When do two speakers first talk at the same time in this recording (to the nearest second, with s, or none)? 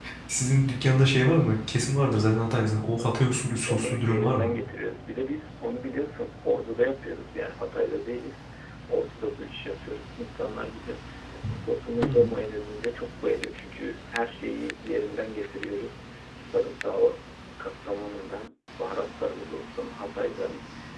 3 s